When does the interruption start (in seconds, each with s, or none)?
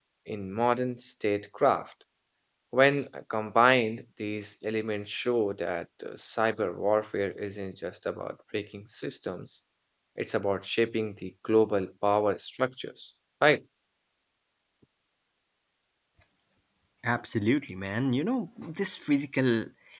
none